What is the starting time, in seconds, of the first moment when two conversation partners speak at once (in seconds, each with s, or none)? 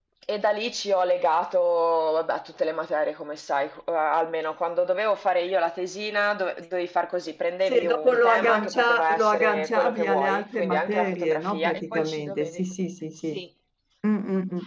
7.7 s